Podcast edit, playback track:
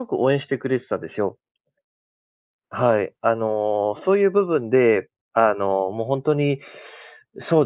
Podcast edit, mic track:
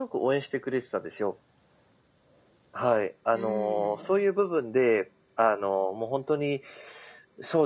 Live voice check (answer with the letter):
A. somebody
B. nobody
A